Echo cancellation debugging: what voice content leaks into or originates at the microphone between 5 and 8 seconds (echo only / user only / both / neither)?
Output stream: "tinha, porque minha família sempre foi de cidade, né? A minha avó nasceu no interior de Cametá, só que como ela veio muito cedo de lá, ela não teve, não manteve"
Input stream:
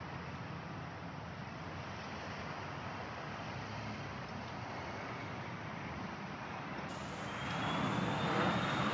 neither